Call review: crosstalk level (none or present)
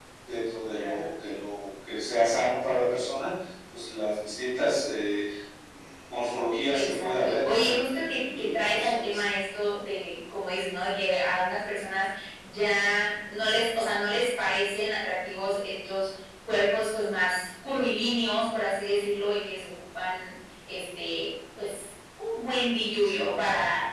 present